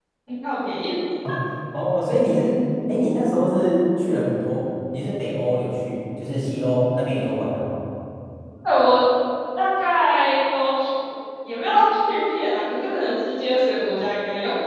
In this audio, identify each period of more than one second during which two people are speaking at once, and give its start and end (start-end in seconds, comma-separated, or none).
none